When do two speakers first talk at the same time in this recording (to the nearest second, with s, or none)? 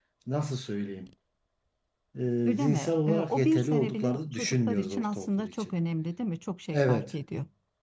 3 s